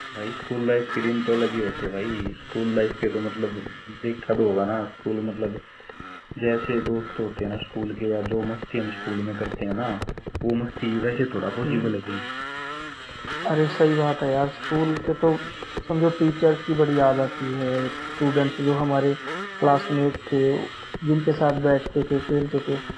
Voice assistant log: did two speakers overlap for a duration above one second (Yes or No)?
No